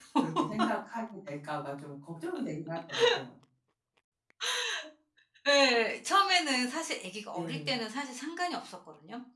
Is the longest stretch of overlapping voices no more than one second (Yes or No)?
Yes